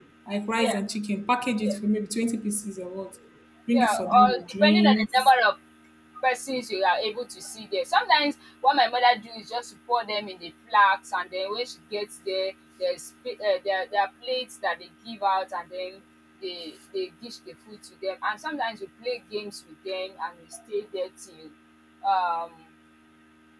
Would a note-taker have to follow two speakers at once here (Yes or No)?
Yes